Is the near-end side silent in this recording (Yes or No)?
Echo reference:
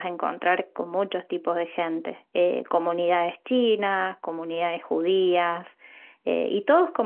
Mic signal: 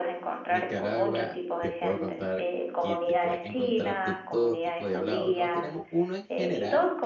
No